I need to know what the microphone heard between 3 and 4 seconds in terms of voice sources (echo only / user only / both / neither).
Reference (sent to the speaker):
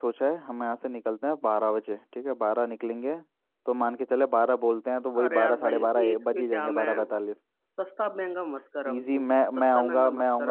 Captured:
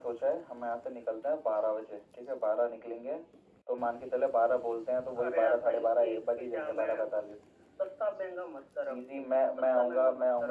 echo only